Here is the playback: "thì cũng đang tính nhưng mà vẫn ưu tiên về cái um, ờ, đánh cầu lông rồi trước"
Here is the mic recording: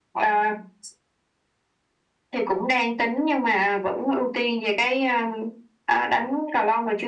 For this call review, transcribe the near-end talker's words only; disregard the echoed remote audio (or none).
none